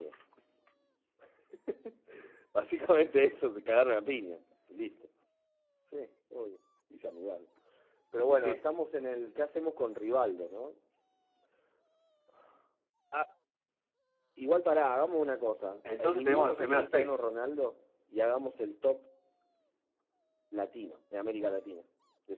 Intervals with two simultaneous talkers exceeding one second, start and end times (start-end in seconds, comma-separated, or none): 16.0-17.3